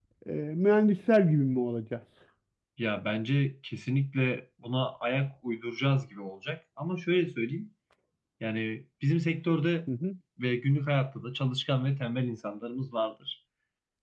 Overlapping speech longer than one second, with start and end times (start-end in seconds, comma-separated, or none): none